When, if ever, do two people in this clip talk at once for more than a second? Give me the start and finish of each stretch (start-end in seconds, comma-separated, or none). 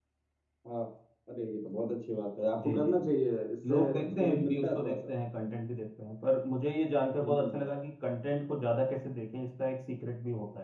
3.7-5.0